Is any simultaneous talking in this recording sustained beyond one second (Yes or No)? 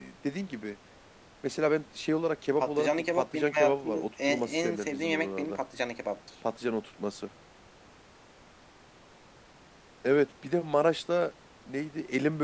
Yes